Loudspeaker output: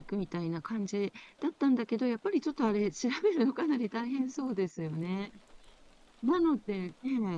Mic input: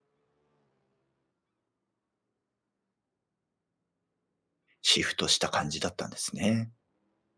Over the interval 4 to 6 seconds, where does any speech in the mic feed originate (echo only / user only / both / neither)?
user only